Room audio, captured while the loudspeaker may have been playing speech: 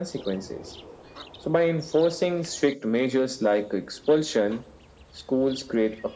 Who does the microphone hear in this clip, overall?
echo only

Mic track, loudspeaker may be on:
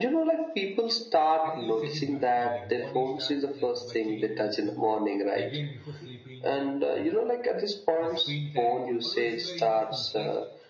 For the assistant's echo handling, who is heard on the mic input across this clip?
both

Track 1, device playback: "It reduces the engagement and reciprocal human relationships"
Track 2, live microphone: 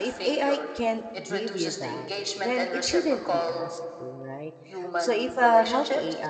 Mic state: both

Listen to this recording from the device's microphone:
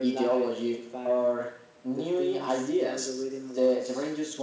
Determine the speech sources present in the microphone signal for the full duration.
echo only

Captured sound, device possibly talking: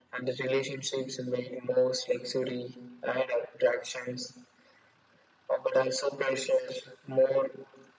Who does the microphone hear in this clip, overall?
echo only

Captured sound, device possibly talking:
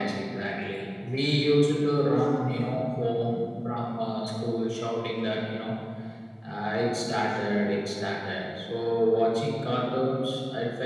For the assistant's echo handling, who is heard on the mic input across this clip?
echo only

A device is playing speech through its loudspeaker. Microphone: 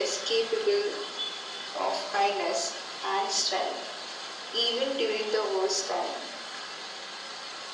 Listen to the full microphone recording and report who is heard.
echo only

